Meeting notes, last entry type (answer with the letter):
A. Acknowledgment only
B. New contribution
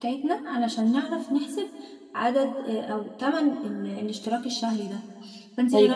A